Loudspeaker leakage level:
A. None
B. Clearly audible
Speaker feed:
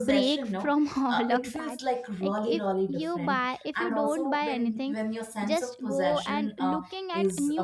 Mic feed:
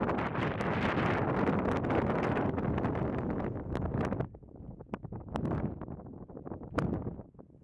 A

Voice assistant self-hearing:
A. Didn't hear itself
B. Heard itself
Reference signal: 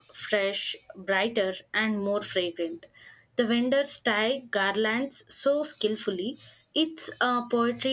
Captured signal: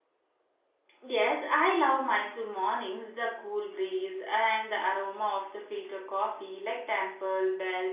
A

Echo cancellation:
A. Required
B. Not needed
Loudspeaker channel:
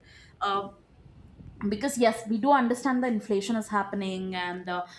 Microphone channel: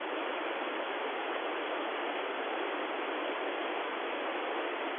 B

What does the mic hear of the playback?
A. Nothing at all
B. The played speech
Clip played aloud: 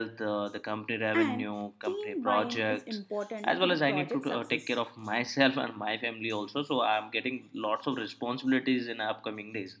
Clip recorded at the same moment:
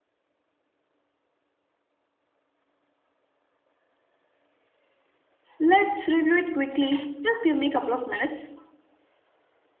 A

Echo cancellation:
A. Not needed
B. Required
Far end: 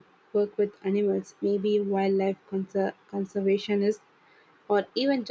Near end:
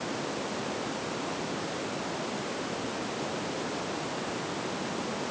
A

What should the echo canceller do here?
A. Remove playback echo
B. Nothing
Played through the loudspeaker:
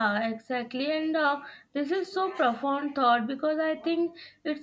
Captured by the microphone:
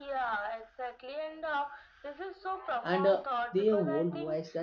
A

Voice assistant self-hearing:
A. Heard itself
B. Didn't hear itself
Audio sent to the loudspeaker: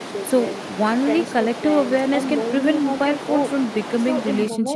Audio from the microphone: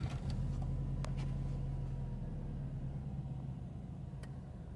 B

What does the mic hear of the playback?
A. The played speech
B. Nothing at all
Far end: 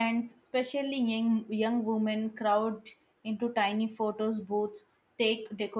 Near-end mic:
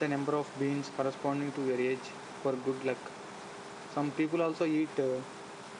B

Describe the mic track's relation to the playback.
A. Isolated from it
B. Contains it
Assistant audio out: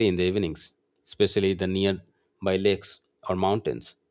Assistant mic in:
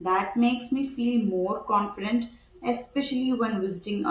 A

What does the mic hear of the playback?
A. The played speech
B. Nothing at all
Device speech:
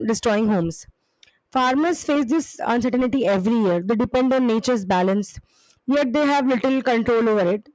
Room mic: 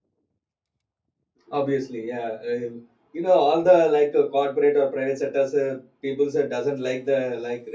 B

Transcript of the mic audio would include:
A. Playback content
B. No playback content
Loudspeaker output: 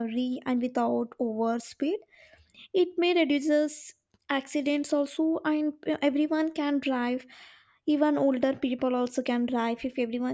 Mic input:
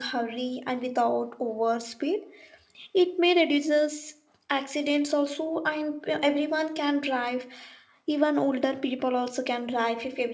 A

